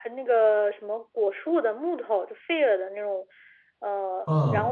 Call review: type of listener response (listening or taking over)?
listening